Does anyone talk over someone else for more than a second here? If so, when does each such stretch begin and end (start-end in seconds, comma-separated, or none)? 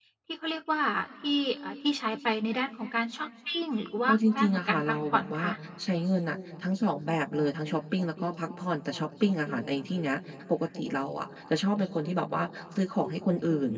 4.1-5.4